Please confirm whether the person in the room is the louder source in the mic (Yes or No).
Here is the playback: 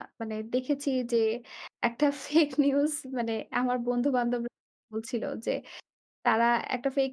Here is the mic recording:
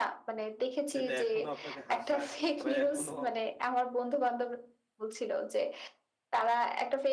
No